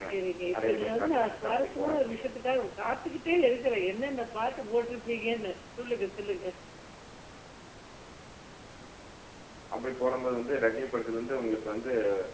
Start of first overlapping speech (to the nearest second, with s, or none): 1 s